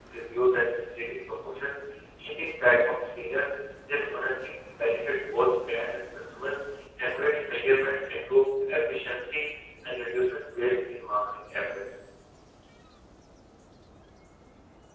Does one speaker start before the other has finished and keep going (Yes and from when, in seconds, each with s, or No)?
No